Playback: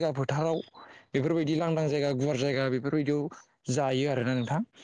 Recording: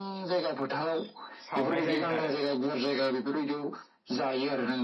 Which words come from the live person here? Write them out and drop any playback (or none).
सावनाय जायोमोन आरो